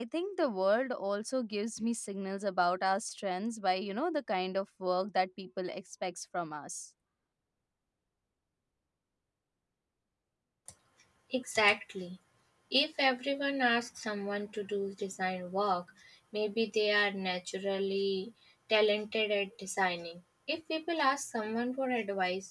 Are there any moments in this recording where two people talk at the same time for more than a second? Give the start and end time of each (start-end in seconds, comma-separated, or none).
none